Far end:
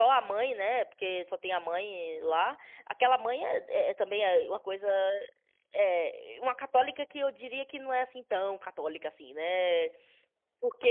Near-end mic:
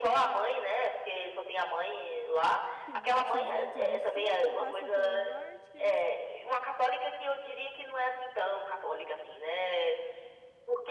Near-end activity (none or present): present